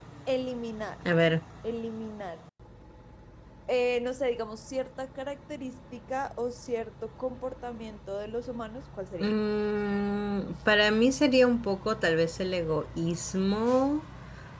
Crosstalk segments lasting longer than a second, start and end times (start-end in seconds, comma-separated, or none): none